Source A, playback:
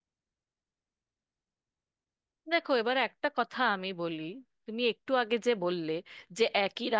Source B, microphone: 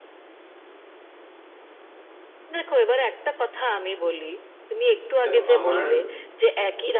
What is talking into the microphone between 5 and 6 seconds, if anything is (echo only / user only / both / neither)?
both